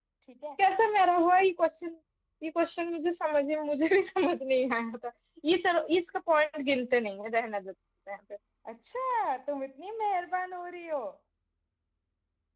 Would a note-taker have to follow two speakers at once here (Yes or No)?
No